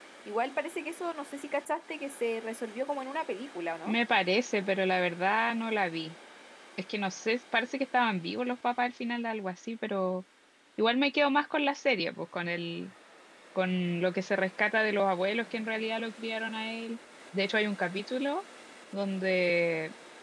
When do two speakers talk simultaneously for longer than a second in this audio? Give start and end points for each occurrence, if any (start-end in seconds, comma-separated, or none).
none